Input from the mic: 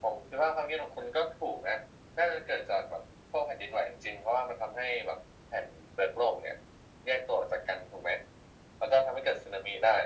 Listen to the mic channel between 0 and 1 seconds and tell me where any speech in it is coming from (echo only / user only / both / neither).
echo only